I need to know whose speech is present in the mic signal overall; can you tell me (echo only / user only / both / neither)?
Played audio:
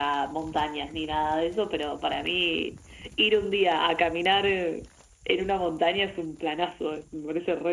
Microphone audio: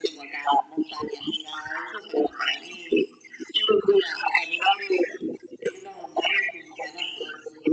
echo only